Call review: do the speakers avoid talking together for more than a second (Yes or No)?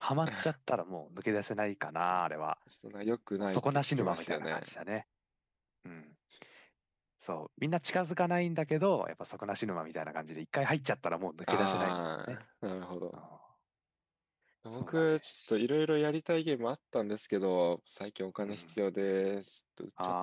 No